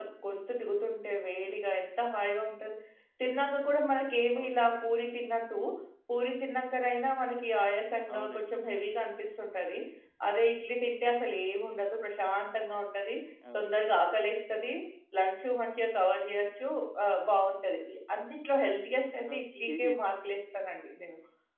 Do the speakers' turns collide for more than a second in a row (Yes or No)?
No